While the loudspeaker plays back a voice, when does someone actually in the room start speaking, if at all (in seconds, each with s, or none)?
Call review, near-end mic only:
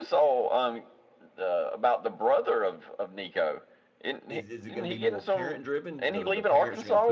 4.3 s